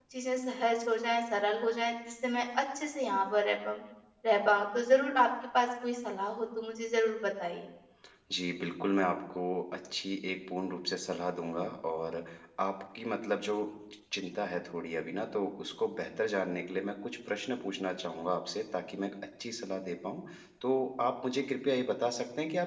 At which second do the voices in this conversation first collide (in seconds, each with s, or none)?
none